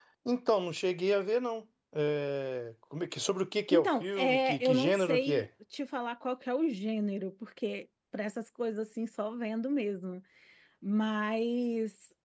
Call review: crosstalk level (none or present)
present